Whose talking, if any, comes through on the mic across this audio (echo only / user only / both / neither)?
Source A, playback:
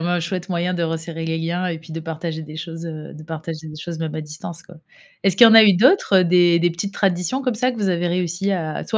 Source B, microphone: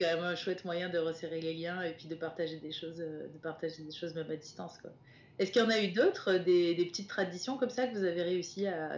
echo only